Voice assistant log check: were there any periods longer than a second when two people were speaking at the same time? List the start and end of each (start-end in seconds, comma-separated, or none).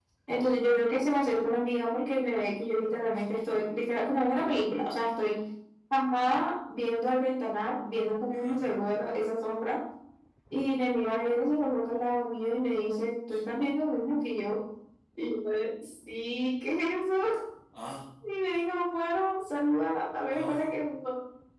none